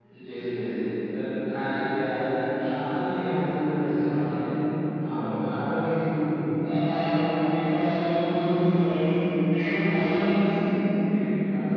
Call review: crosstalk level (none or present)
none